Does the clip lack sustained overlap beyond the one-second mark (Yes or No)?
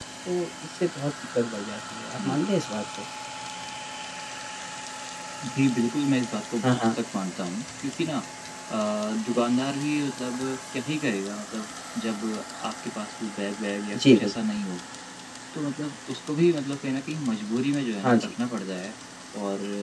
Yes